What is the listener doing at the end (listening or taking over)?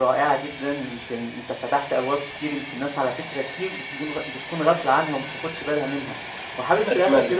listening